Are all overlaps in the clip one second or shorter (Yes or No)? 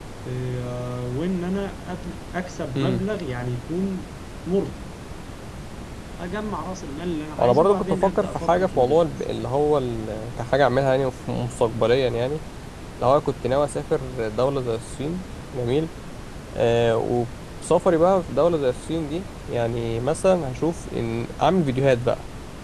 No